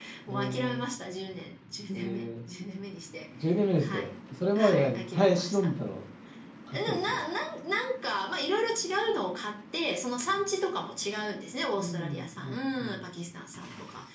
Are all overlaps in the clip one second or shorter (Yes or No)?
No